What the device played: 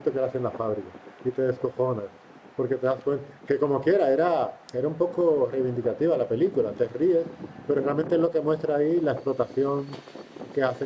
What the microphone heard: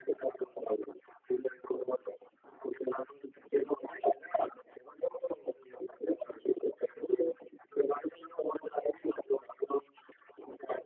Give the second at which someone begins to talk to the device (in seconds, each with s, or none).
none